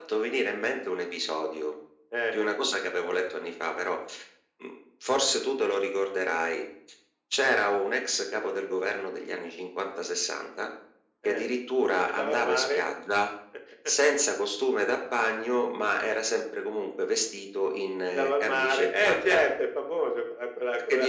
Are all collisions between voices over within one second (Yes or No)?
No